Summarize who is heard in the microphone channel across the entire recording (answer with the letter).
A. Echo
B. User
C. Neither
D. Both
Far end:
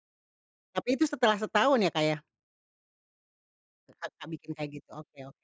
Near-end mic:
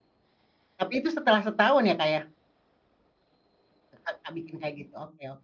A